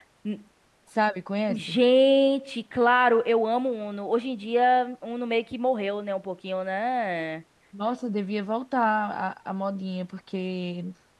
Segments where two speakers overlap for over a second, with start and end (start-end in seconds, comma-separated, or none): none